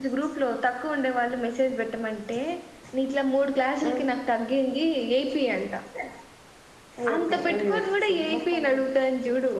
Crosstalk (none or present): present